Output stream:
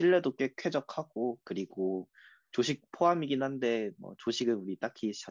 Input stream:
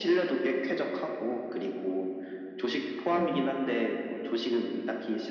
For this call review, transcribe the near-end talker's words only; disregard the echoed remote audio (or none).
응.